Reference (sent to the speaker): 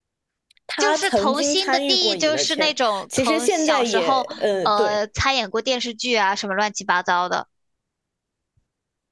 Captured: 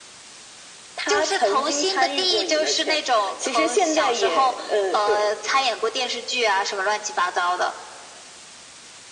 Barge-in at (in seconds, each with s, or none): none